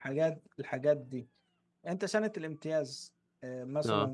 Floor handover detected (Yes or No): No